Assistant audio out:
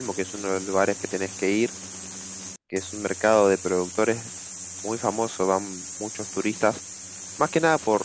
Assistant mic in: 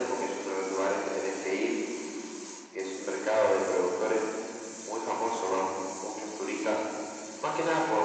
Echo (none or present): present